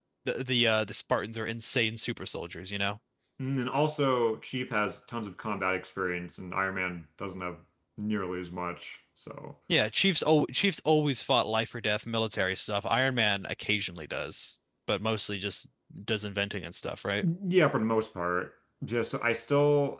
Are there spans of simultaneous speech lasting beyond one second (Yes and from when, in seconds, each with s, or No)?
No